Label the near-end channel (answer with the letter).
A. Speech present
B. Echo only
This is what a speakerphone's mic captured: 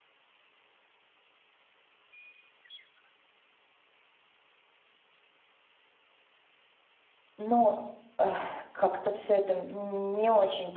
A